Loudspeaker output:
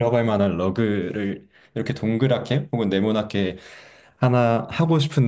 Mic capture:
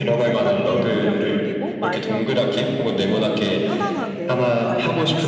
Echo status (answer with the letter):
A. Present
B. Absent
A